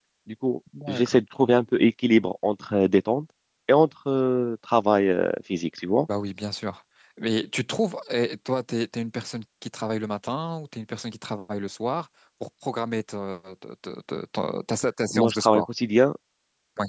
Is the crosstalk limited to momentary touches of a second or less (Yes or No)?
Yes